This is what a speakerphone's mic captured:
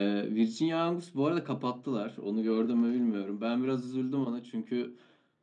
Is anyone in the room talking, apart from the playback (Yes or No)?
No